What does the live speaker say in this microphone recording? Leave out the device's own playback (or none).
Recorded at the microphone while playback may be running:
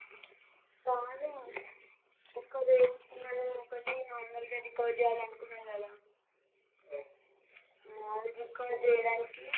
none